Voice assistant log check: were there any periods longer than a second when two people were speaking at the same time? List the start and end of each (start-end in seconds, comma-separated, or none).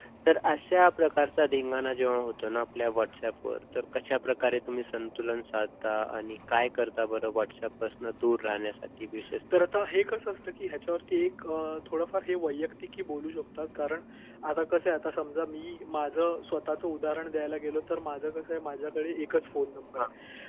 none